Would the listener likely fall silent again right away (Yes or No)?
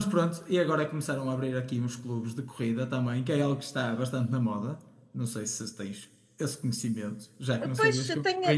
No